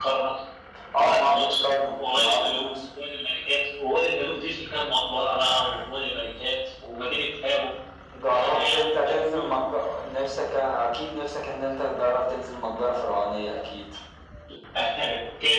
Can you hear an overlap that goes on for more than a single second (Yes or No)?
Yes